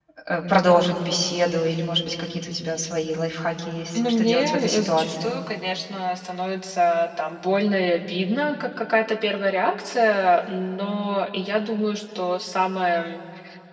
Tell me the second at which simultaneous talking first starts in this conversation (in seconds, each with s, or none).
3.9 s